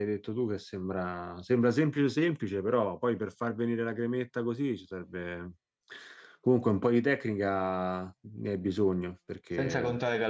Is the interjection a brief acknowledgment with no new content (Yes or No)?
No